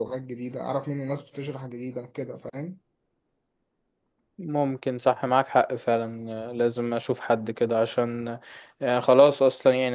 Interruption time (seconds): none

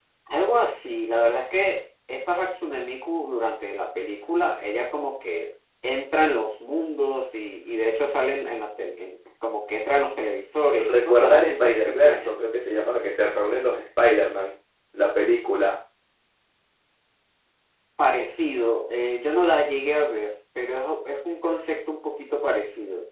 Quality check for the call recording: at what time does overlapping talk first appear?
10.7 s

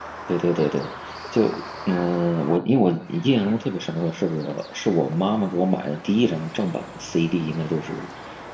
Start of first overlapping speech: none

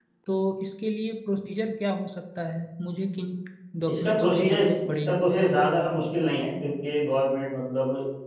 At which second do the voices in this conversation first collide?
3.9 s

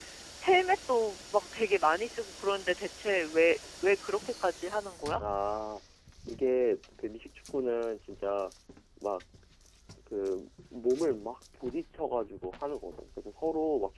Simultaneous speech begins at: none

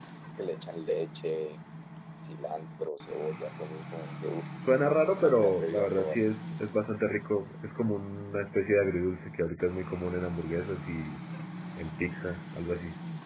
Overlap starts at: 5.0 s

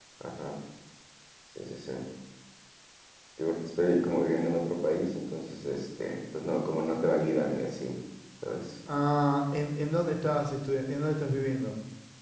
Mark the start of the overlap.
none

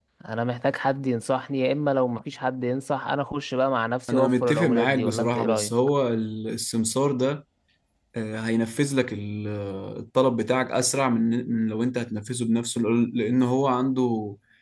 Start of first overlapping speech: 4.1 s

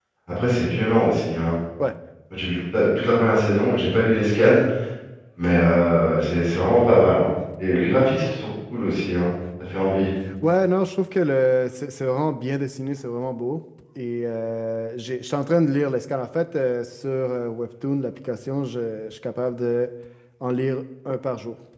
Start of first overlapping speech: none

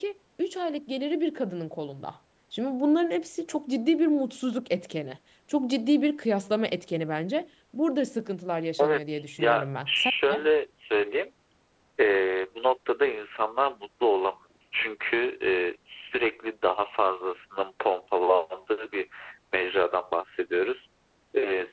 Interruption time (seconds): 8.8 s

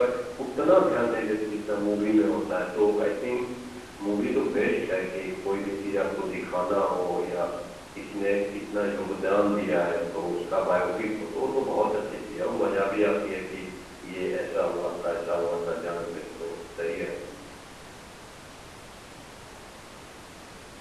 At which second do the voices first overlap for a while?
none

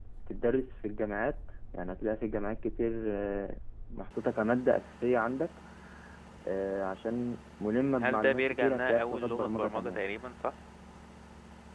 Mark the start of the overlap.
8.0 s

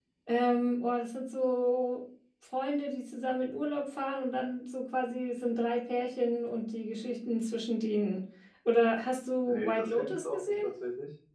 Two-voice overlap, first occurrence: 9.5 s

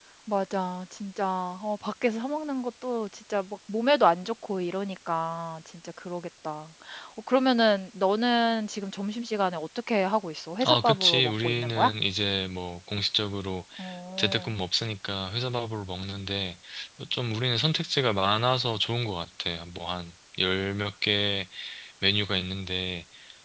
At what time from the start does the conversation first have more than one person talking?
10.6 s

